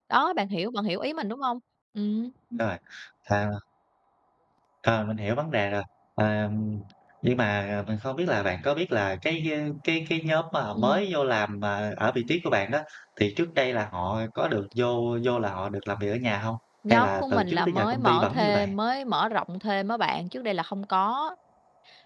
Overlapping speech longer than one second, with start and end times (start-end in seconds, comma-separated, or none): 16.9-18.7